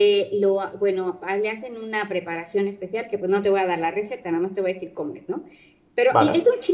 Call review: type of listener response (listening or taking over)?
listening